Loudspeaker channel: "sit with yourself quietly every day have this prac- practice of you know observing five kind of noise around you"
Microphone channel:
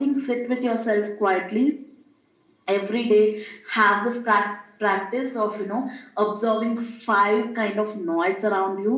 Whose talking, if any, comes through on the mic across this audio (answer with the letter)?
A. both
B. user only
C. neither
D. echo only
D